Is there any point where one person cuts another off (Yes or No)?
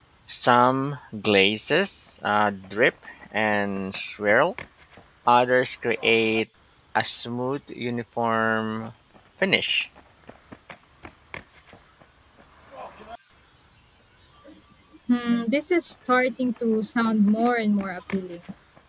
No